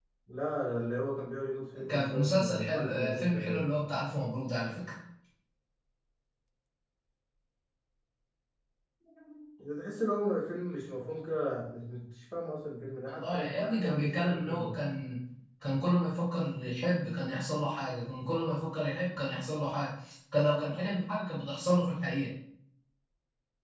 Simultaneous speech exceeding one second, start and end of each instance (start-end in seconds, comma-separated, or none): 1.9-3.7, 13.1-14.8